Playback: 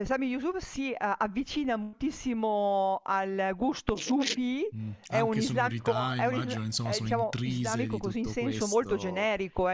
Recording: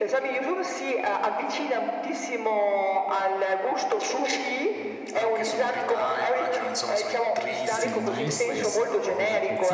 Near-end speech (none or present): present